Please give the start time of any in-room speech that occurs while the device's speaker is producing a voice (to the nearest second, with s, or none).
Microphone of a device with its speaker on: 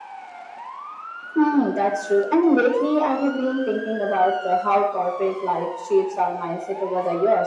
none